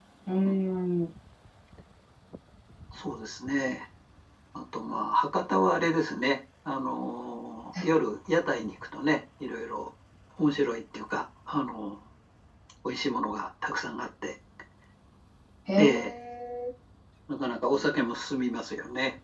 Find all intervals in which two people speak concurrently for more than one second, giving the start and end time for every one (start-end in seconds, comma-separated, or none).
none